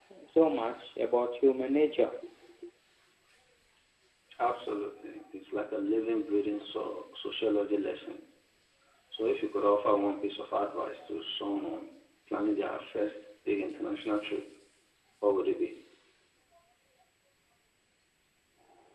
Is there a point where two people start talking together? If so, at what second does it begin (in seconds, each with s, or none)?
none